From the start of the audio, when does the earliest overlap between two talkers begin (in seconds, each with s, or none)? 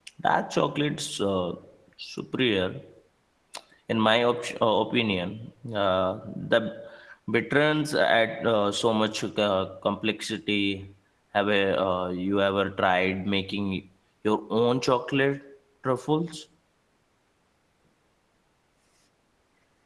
none